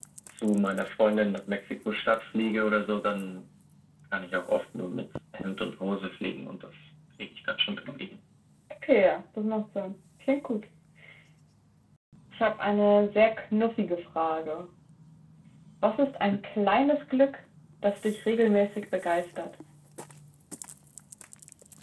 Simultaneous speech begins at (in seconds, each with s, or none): none